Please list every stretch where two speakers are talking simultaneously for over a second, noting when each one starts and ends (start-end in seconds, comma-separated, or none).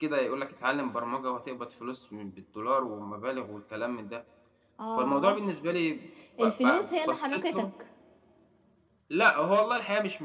6.4-7.7